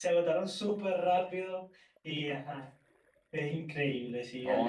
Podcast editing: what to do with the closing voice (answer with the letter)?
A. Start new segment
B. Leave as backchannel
A